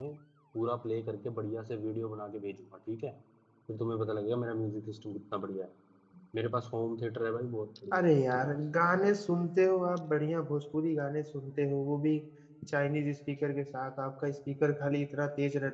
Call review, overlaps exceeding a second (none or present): none